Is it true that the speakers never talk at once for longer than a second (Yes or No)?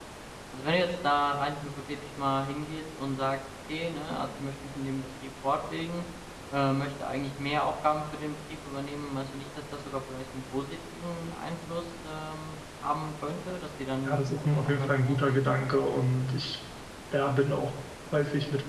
No